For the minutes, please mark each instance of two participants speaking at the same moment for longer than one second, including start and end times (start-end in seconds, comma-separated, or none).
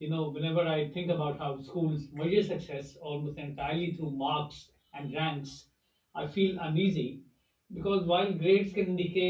none